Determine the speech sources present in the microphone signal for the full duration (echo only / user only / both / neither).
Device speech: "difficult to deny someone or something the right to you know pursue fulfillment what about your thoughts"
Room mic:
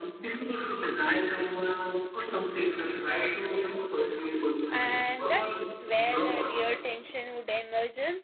both